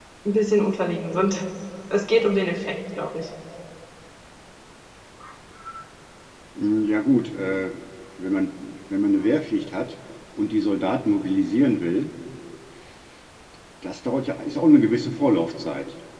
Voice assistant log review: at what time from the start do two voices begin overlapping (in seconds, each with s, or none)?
none